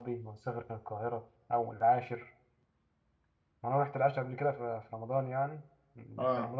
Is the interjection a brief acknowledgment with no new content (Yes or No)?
Yes